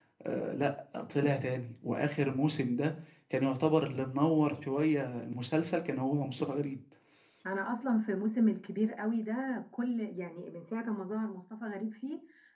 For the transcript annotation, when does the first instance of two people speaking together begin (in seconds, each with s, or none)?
none